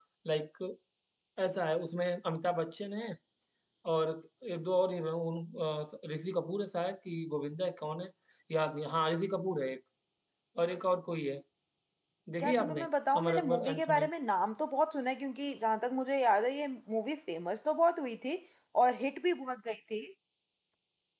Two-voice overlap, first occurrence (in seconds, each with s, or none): 12.4 s